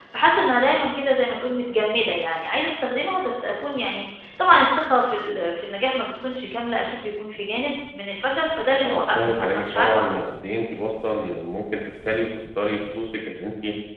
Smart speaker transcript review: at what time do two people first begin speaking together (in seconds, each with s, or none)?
8.8 s